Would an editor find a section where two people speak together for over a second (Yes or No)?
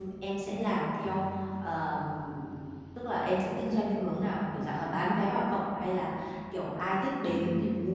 No